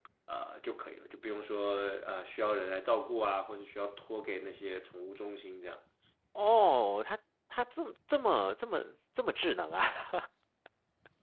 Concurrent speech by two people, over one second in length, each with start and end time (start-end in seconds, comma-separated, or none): none